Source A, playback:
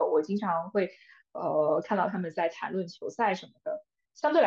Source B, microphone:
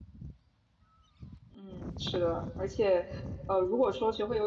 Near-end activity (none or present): present